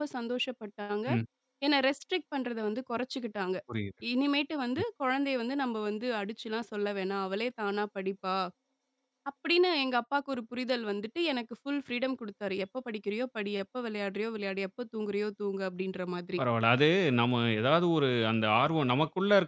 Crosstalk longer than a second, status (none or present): none